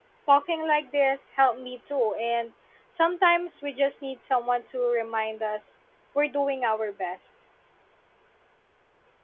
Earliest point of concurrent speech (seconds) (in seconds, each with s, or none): none